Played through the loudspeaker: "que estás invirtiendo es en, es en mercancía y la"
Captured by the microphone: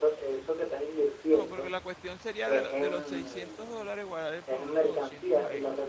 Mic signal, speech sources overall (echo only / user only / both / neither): both